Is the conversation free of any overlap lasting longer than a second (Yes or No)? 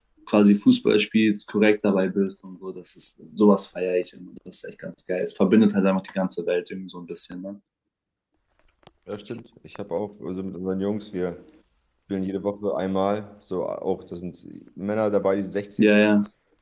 Yes